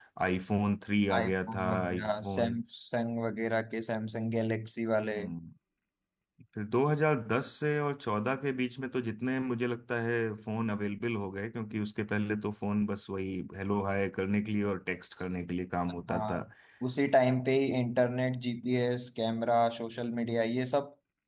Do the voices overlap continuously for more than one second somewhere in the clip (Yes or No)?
Yes